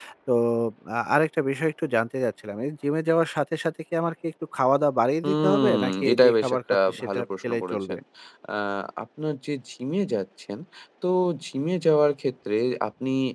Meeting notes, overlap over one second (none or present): present